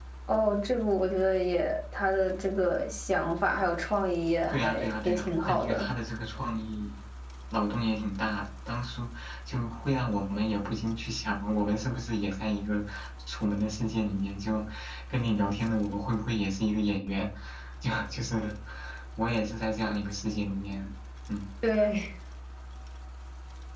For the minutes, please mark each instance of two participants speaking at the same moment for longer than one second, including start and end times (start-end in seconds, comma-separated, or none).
4.5-5.9